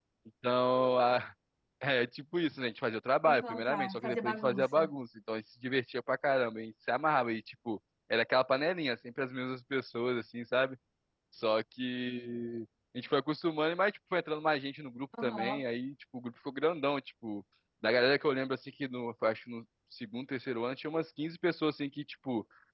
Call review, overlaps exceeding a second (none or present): present